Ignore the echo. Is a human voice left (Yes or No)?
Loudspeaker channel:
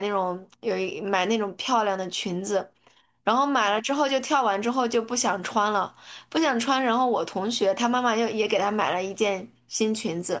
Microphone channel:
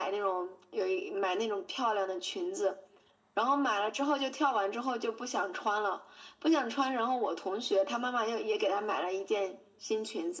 No